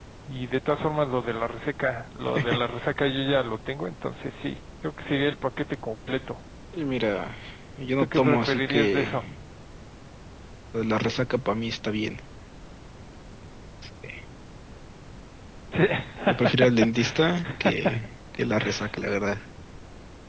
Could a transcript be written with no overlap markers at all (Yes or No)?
No